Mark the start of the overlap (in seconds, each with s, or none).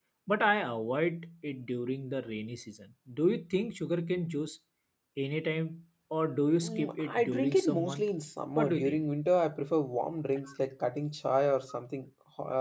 6.6 s